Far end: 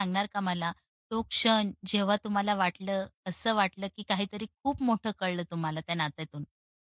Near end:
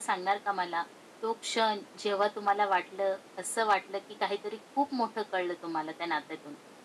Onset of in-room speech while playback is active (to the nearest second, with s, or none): none